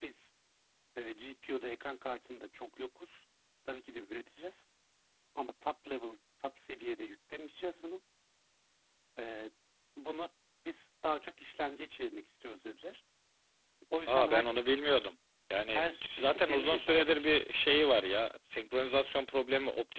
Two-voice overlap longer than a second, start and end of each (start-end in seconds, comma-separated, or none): 15.7-17.3